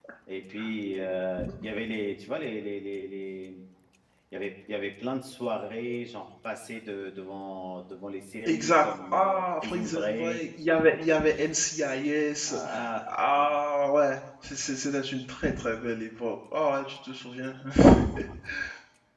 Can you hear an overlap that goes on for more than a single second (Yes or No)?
Yes